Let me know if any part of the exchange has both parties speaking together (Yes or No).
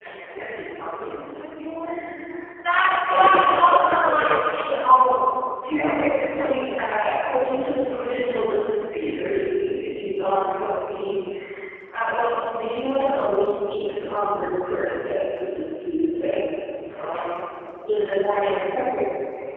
Yes